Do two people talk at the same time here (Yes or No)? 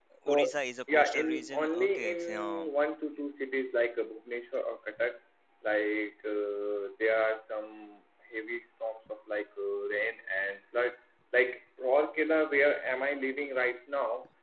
Yes